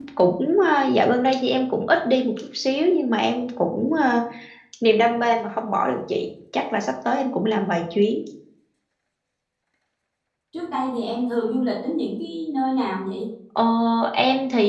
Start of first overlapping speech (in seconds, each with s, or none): none